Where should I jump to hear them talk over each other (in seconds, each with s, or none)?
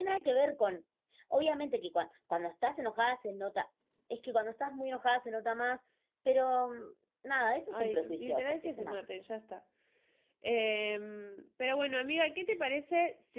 7.7 s